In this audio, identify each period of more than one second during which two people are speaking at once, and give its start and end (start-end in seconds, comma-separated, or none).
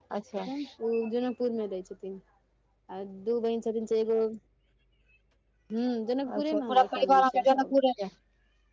6.4-7.7